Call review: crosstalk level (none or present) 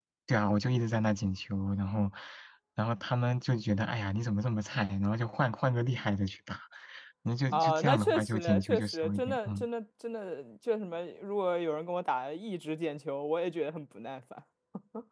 present